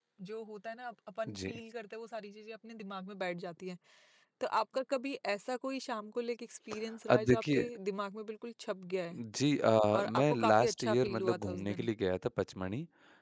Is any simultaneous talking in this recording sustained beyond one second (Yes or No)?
Yes